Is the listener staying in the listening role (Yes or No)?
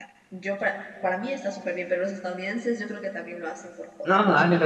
No